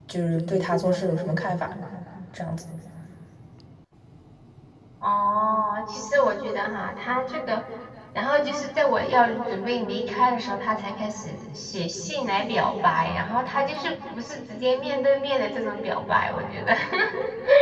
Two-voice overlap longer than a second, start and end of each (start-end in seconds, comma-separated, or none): none